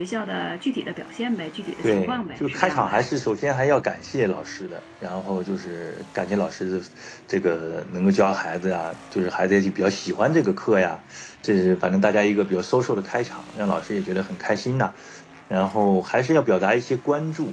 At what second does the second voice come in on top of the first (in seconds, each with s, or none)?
1.8 s